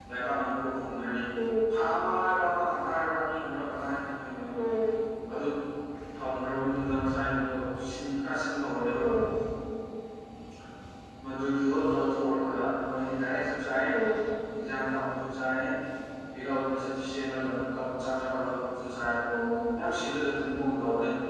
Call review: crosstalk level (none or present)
none